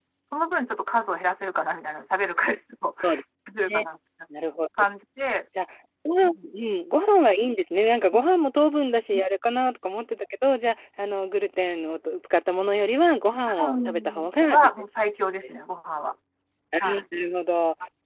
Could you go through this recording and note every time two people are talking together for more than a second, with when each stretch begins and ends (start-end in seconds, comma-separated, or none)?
13.3-14.7